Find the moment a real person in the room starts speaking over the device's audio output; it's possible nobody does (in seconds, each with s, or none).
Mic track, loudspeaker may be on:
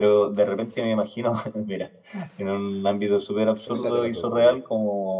3.6 s